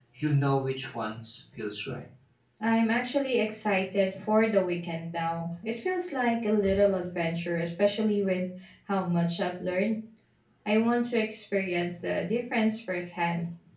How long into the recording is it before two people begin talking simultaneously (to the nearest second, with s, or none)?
none